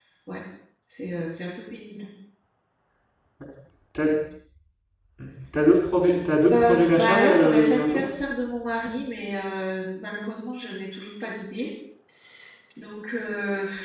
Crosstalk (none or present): present